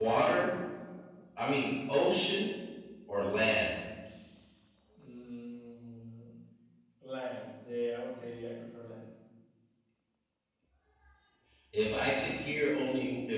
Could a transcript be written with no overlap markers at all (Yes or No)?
Yes